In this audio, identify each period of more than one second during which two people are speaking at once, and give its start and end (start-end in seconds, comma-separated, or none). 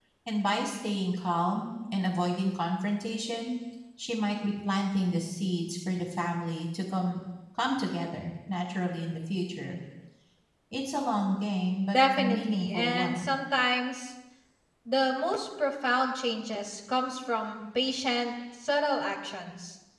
11.9-13.3